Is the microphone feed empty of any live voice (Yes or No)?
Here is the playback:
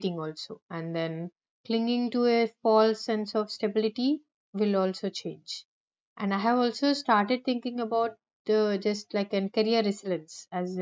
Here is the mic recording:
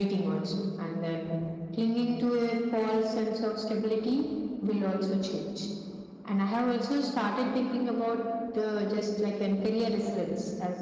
Yes